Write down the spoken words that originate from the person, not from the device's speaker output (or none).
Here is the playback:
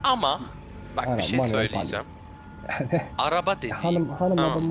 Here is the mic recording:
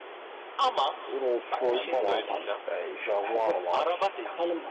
Rolls-Royce var. Ee, Jaguar var.